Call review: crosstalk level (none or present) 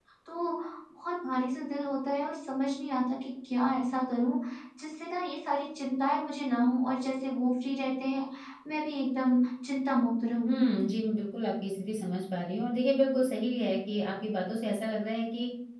none